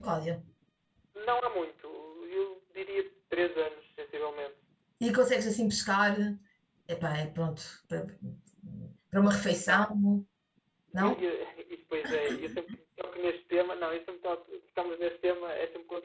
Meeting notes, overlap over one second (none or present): none